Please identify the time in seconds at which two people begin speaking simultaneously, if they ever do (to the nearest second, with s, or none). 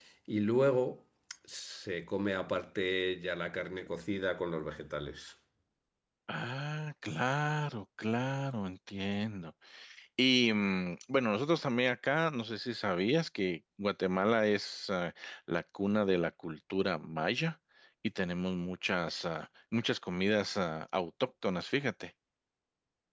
none